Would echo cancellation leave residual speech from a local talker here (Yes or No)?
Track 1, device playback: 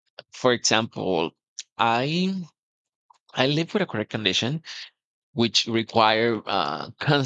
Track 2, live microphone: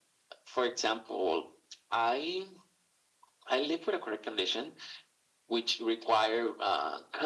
No